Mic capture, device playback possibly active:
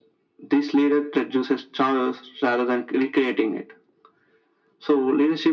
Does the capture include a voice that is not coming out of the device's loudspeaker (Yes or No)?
No